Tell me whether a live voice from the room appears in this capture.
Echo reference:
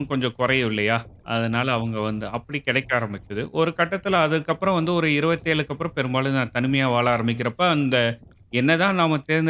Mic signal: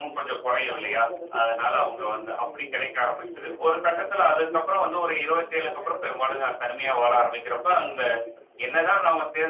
Yes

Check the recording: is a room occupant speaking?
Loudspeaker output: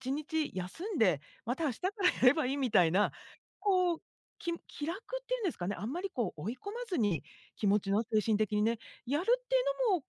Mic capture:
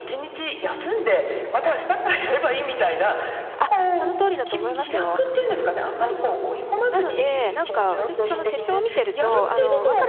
Yes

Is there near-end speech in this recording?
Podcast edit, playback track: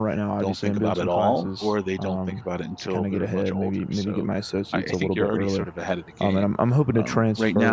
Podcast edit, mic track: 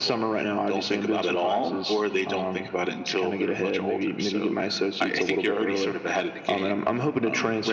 No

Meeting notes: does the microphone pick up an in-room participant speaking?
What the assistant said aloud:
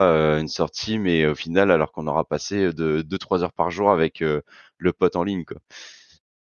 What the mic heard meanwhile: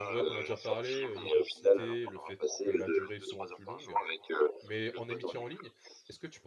Yes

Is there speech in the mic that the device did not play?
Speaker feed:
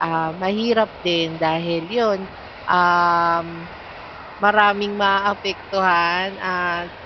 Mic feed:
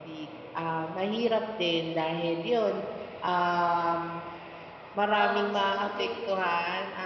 Yes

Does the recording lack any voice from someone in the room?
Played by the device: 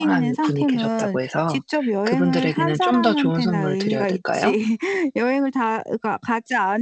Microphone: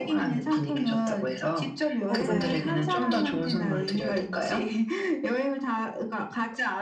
No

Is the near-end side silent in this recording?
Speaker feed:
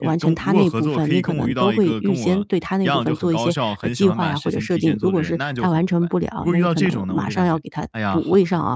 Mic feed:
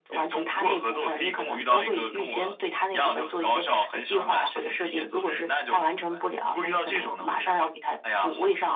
Yes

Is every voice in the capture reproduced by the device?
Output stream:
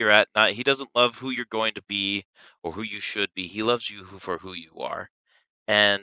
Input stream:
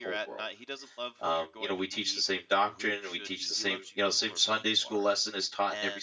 No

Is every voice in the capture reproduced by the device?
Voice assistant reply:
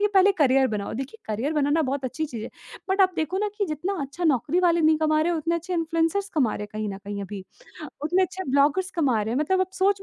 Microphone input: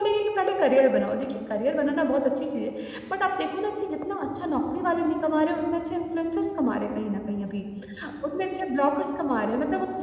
Yes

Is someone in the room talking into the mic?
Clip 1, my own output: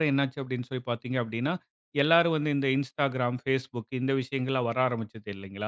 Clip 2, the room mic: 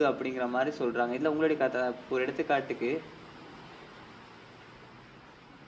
Yes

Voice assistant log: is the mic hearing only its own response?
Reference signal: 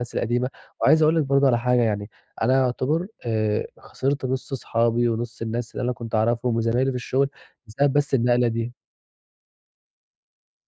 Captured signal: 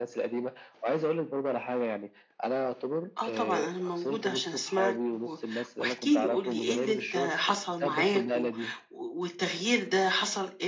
No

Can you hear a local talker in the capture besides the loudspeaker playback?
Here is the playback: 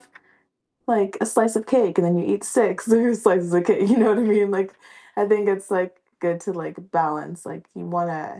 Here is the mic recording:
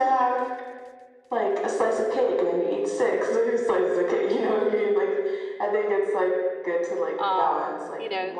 Yes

